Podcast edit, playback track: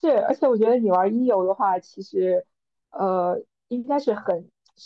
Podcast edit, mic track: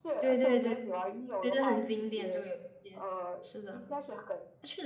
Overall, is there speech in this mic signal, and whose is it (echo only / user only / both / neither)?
both